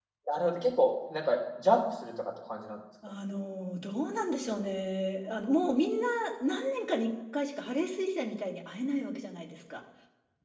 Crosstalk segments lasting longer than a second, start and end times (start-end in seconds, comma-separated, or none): none